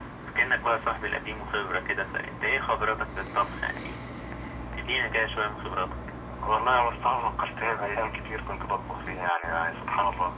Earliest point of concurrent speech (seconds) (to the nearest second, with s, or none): none